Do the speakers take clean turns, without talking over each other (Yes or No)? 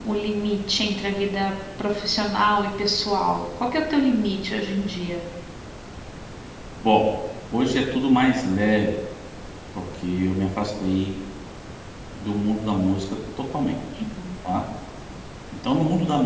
Yes